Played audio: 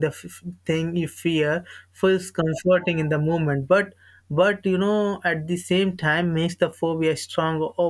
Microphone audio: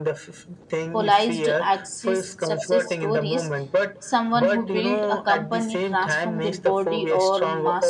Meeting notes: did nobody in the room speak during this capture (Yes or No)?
No